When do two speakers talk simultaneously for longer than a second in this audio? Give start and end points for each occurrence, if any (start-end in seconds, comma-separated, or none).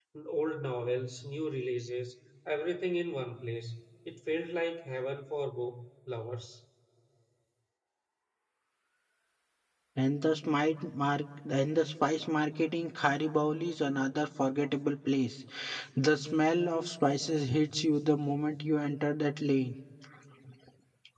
none